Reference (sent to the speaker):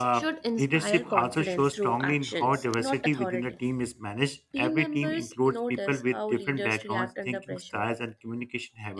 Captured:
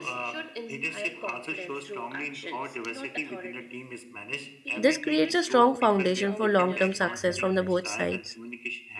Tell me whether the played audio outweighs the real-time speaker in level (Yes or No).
No